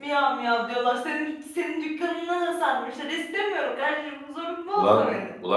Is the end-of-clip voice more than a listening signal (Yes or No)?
Yes